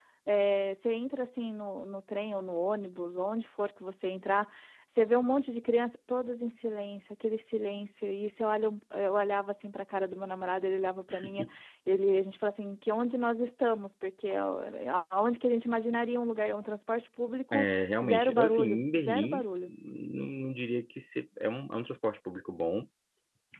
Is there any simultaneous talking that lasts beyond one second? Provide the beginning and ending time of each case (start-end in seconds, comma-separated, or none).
18.0-19.7